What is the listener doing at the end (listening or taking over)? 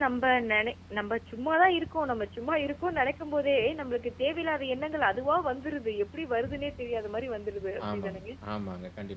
taking over